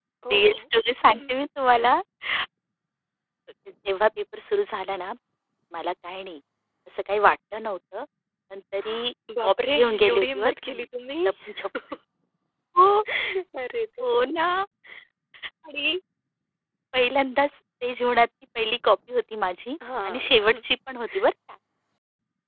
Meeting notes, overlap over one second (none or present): present